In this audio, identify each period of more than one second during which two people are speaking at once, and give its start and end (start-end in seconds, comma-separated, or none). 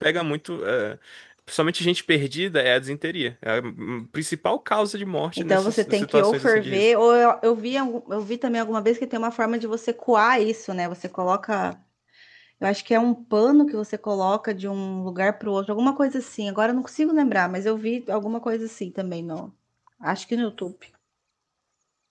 5.4-6.9